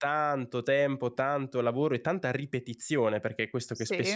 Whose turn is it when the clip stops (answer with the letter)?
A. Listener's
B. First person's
B